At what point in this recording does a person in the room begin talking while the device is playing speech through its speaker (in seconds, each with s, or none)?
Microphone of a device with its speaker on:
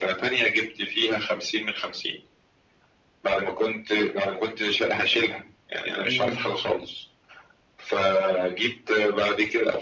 6.1 s